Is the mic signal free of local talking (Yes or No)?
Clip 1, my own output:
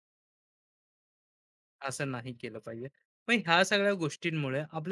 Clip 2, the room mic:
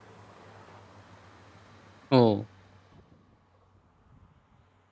No